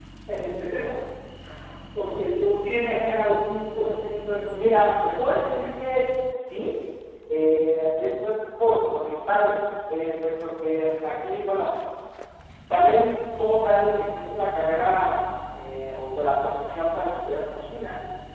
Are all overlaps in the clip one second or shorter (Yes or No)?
Yes